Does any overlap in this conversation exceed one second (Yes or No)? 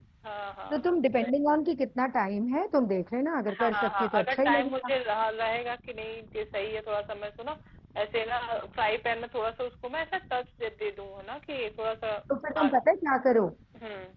Yes